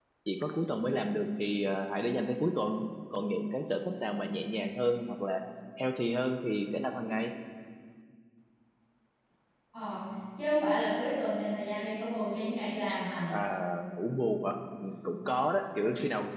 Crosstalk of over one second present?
No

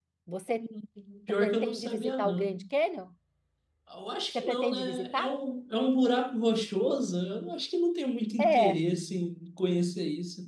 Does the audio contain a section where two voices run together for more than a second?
Yes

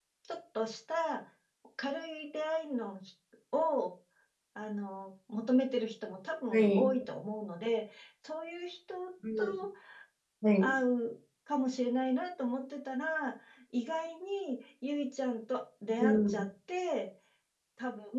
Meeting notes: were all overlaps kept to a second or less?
Yes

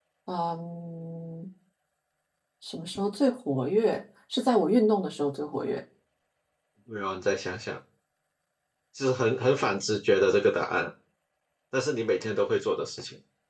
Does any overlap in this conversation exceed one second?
No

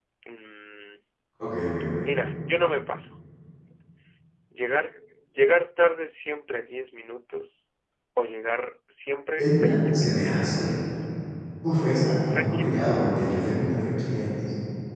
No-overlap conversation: No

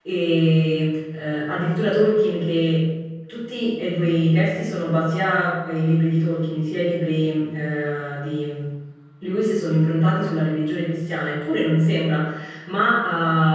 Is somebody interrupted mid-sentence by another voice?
No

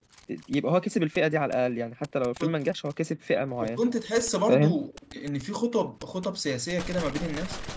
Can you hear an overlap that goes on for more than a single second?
No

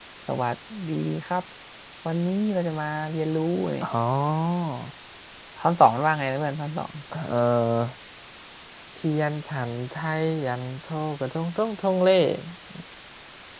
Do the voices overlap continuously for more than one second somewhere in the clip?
No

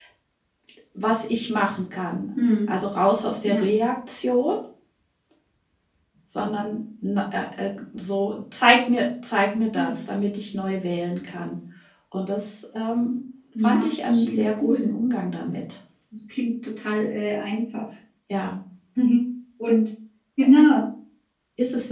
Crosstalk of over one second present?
Yes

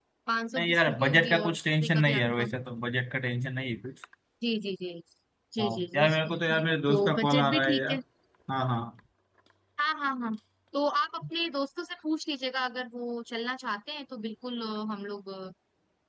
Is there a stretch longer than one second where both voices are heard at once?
Yes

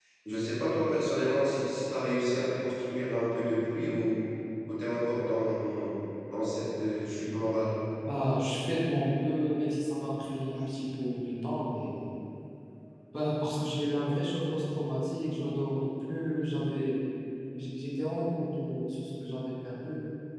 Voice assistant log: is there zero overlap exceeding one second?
Yes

